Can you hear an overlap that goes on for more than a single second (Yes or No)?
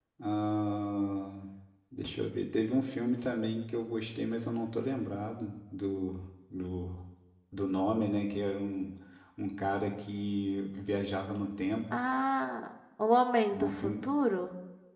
No